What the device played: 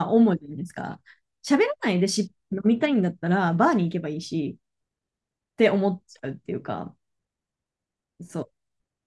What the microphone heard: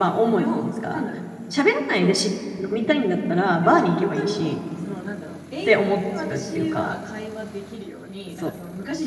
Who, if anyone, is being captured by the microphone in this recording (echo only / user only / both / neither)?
both